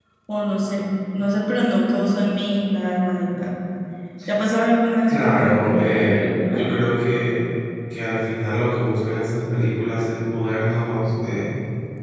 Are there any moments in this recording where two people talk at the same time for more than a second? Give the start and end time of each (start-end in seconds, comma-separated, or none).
5.1-6.7